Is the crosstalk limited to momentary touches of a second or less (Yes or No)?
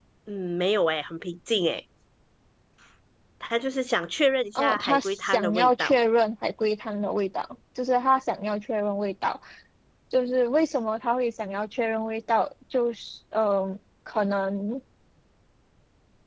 No